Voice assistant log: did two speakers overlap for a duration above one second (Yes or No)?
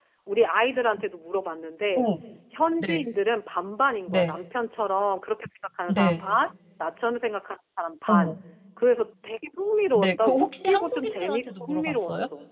Yes